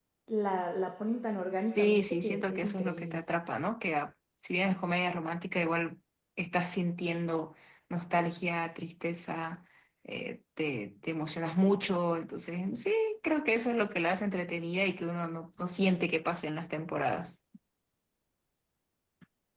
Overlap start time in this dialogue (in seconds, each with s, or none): 1.7 s